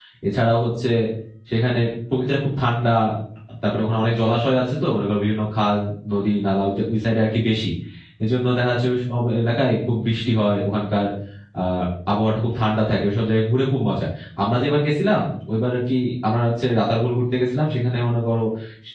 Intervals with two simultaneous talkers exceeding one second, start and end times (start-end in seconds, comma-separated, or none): none